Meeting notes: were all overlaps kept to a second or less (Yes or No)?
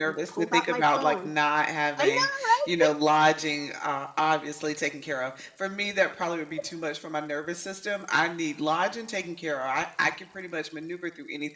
No